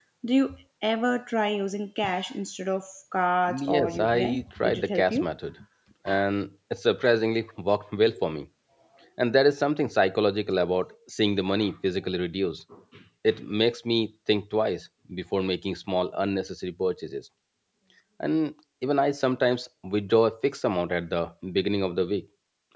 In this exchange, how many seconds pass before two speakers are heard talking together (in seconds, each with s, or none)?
3.5 s